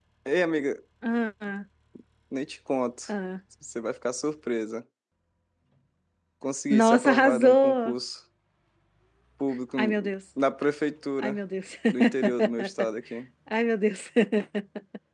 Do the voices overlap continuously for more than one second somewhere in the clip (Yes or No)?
Yes